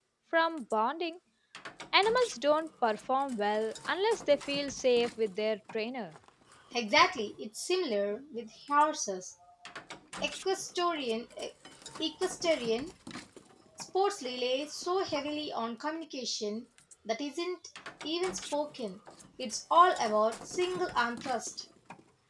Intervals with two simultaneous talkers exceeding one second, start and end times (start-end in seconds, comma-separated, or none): none